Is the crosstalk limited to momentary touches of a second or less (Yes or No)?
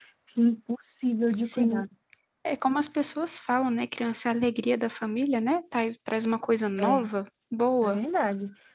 Yes